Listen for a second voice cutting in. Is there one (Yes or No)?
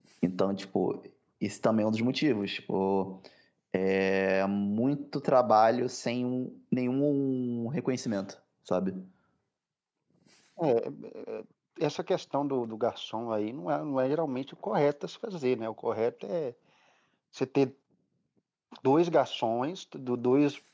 No